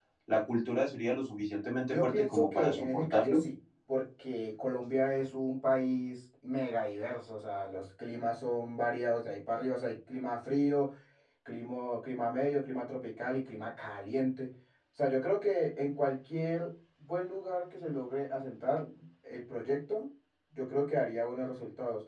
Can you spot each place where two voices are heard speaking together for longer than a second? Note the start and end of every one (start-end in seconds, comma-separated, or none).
1.9-3.4